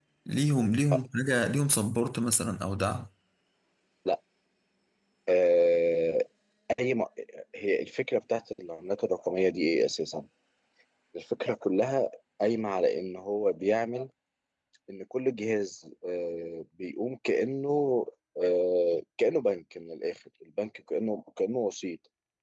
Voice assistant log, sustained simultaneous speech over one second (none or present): none